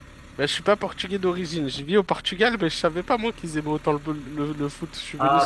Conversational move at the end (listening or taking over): taking over